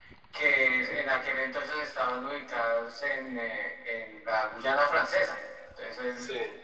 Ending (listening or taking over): listening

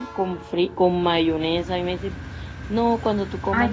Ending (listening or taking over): taking over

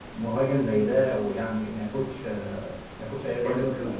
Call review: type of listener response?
taking over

